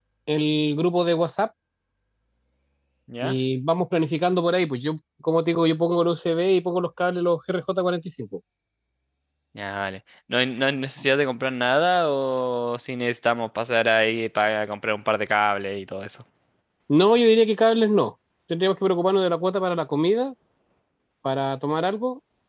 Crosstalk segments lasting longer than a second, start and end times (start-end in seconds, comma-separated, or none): none